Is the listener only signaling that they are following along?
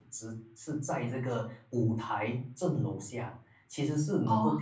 Yes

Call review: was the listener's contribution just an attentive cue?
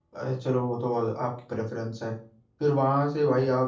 Yes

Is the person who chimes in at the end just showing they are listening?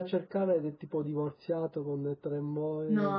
No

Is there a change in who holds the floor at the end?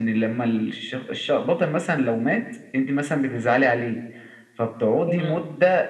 No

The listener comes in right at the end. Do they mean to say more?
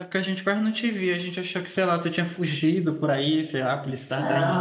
Yes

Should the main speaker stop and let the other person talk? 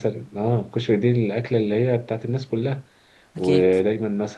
No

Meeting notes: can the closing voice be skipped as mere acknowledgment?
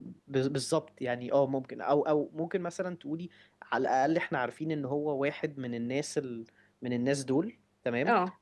Yes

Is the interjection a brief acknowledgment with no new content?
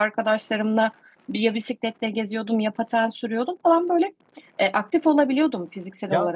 No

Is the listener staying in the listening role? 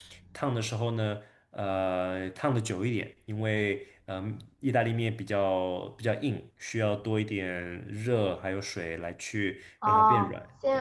No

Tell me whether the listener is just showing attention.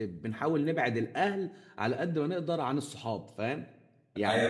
No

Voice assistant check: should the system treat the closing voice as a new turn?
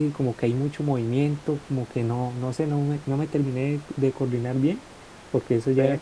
No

